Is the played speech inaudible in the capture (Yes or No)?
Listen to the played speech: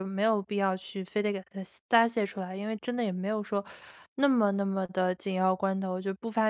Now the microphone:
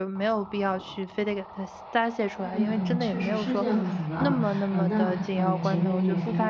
No